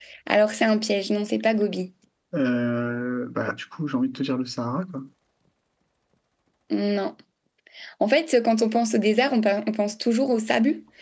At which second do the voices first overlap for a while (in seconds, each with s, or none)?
none